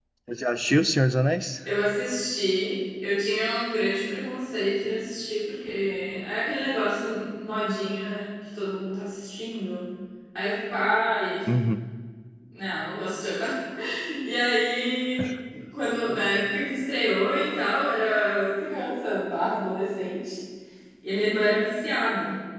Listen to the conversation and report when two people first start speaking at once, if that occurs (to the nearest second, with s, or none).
none